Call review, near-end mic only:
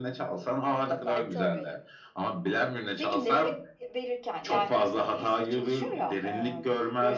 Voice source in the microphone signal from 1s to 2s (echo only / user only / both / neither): both